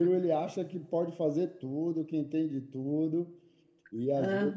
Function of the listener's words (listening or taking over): listening